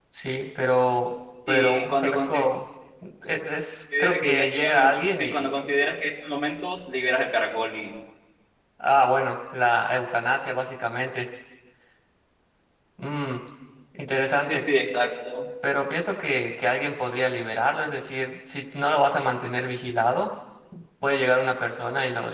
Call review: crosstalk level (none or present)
present